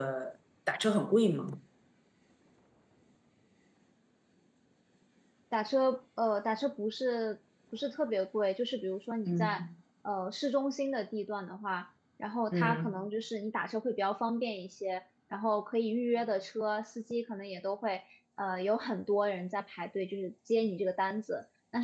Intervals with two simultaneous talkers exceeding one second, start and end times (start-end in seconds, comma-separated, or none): none